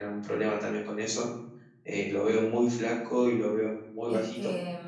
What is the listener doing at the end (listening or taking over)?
taking over